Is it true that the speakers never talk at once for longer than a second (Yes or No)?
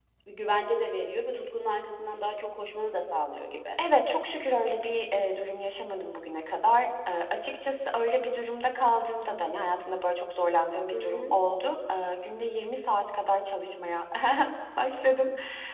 Yes